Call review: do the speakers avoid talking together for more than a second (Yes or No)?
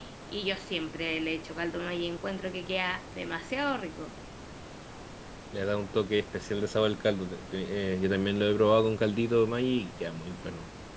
Yes